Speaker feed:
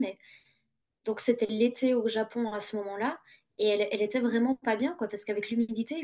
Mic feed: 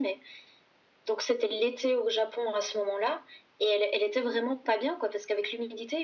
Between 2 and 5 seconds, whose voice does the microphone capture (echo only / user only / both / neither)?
echo only